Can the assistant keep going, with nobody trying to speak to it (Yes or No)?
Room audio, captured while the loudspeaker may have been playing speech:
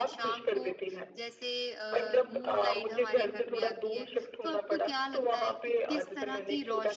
No